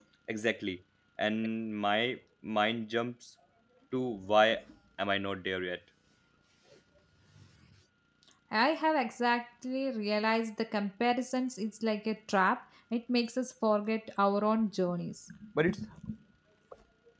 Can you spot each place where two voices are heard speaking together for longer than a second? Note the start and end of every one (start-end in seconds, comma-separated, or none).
none